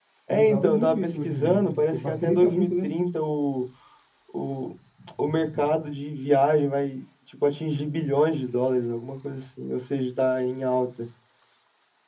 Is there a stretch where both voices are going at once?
Yes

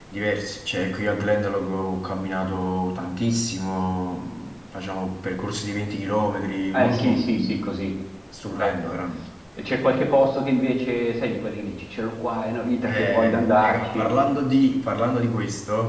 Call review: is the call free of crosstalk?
No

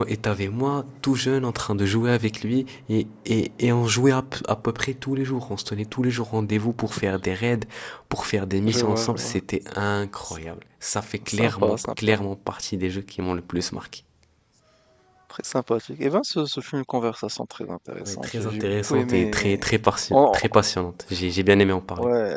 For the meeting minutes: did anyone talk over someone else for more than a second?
Yes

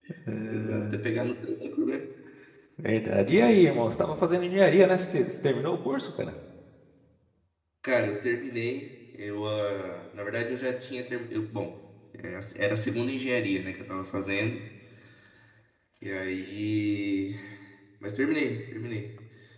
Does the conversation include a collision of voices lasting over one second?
No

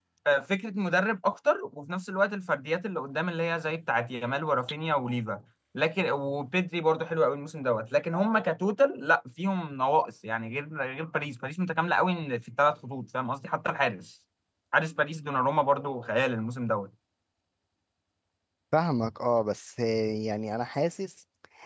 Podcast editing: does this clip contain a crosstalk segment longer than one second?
No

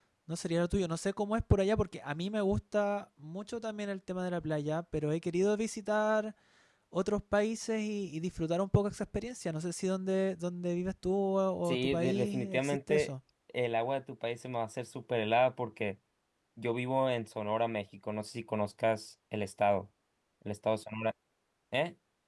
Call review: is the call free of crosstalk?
No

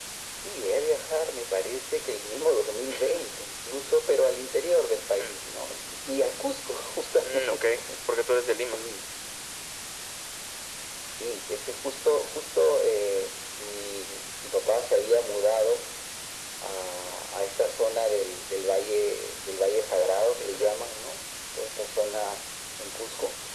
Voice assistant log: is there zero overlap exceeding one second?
Yes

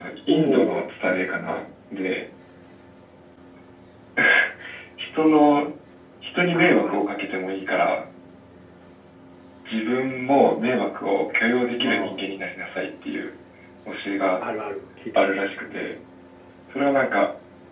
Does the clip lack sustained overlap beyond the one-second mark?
No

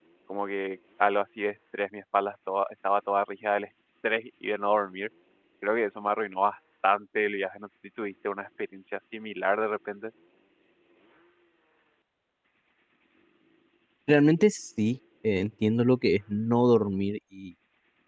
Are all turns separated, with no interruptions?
Yes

